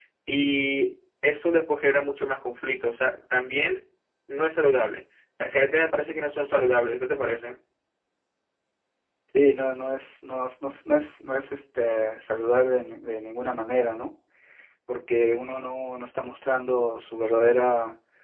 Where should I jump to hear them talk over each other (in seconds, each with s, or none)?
none